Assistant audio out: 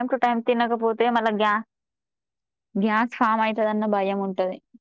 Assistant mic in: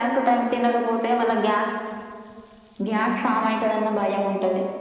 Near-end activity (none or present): none